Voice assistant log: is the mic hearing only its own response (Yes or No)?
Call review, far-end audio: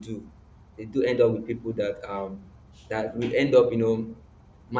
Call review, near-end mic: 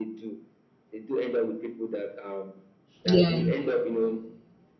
No